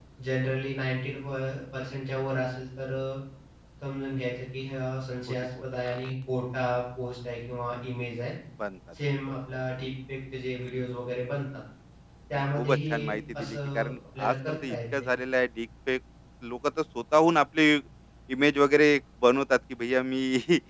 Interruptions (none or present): present